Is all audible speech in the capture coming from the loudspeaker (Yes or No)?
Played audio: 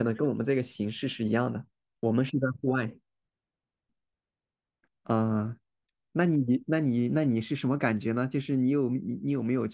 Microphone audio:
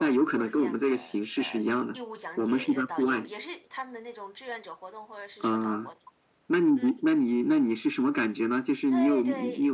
No